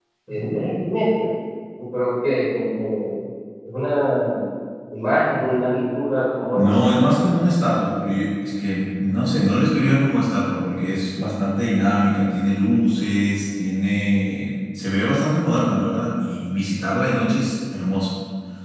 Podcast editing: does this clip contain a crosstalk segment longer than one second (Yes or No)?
No